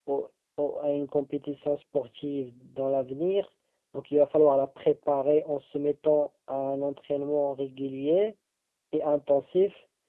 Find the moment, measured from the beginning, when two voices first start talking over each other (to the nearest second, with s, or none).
none